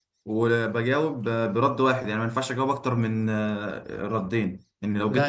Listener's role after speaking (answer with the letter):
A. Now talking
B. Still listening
B